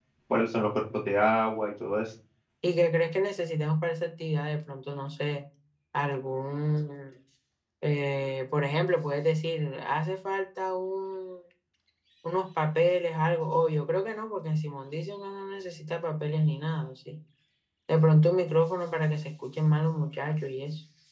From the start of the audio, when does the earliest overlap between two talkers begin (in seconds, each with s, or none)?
none